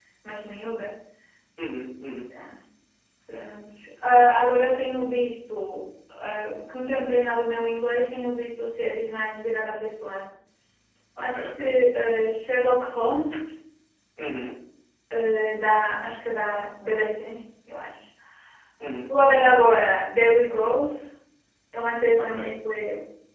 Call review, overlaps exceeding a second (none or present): none